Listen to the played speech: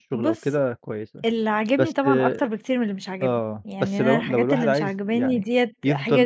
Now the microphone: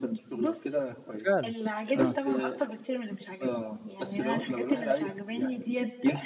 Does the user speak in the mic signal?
Yes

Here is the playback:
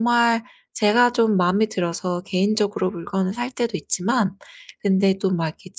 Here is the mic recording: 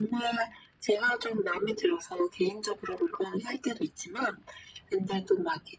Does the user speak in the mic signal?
No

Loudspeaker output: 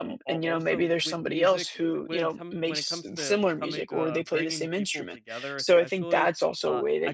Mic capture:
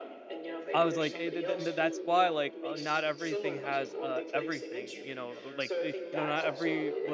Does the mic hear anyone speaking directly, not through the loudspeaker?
Yes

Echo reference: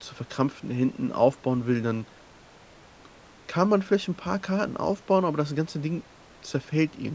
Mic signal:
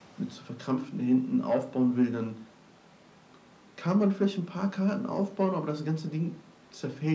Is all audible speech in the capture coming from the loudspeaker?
Yes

